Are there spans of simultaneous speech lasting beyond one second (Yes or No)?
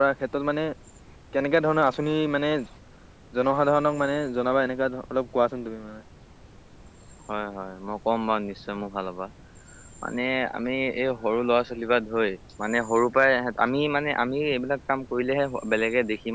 No